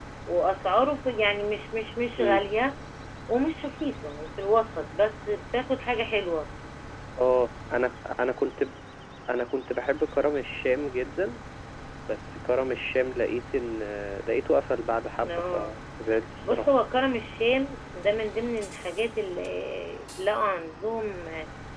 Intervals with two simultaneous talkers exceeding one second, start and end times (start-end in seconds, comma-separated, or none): none